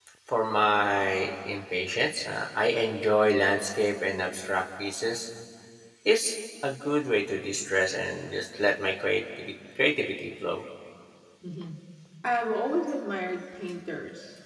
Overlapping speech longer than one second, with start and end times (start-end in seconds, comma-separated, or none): none